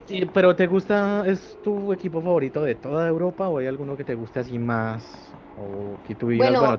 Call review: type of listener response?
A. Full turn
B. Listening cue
A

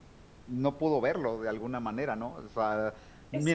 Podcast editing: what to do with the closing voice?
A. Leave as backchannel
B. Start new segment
A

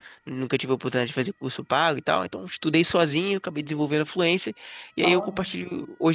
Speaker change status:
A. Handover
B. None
B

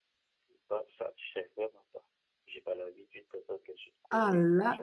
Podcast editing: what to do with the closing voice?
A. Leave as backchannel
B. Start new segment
B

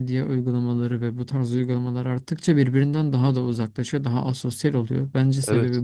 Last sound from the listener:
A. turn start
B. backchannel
A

